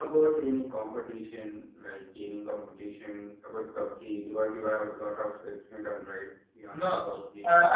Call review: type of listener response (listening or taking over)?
taking over